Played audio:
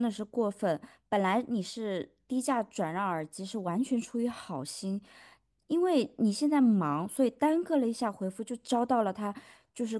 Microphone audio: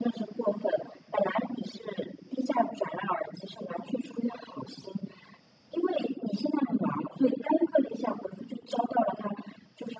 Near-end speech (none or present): none